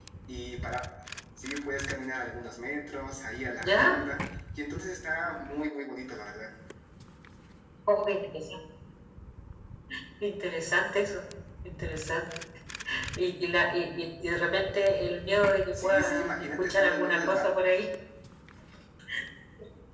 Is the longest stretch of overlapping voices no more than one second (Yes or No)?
No